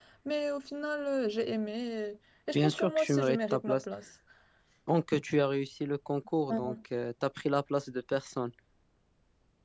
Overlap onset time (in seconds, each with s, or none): 2.5 s